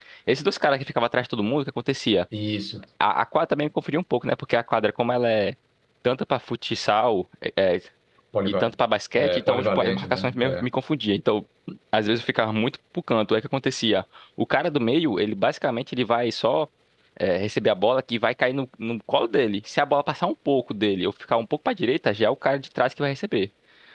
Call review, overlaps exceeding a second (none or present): present